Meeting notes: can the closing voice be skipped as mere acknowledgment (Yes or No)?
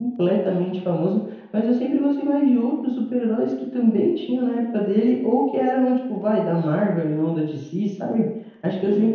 Yes